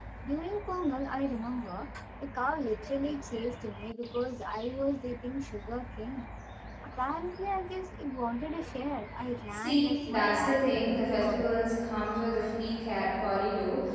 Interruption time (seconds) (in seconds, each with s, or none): 9.3 s